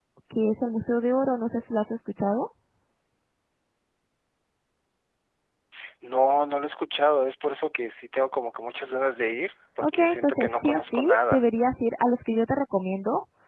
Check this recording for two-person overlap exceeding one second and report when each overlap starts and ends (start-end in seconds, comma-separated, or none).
9.8-11.4